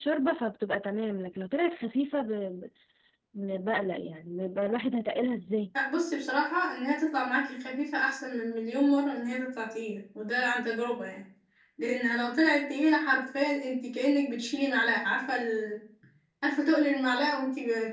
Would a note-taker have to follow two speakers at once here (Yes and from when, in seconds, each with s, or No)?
No